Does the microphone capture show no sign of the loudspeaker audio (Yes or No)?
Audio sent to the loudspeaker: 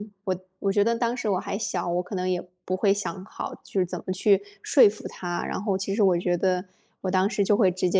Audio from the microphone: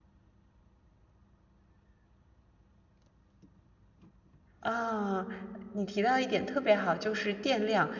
Yes